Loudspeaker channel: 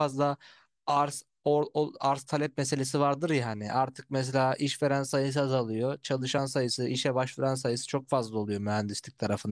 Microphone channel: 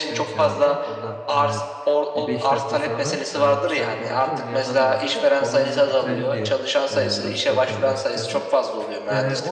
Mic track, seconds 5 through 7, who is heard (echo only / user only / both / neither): both